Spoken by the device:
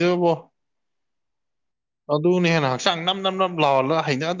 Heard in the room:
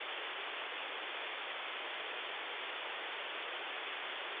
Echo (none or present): none